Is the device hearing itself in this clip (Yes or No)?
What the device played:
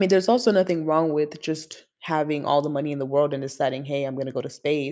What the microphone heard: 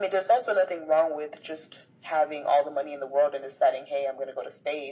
Yes